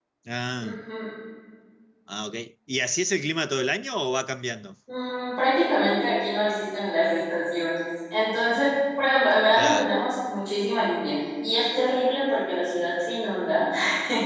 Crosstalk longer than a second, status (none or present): none